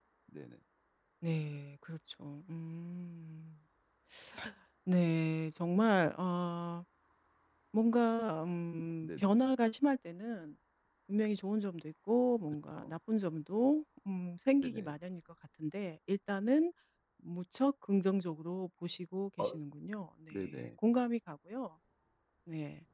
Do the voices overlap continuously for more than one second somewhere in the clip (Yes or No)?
No